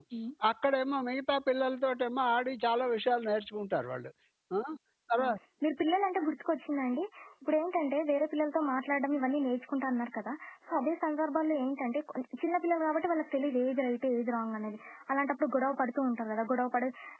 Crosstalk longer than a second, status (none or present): none